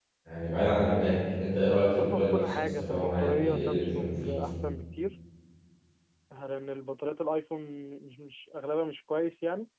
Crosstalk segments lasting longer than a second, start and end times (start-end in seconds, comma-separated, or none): 2.0-4.4